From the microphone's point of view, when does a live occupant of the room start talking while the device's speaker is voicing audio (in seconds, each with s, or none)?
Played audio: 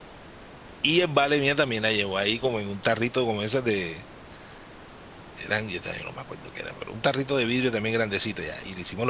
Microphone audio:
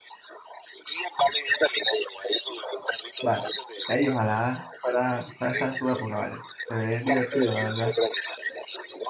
3.2 s